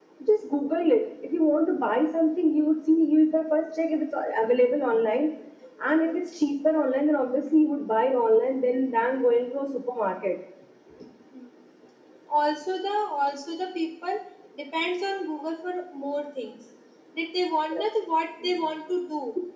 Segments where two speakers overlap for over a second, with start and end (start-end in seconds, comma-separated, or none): none